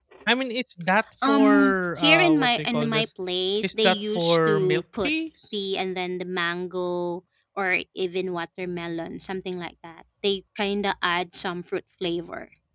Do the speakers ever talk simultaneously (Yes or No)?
Yes